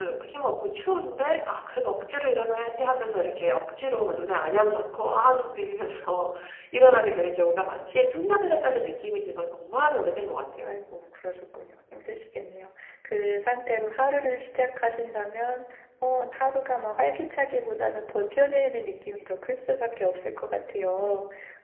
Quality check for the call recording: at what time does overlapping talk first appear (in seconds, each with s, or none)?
none